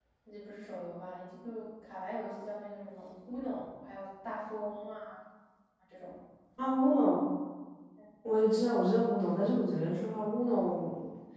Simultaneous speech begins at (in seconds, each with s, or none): none